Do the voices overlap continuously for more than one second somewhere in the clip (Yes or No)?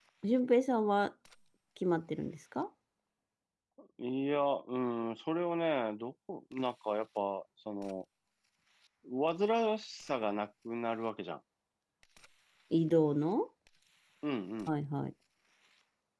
No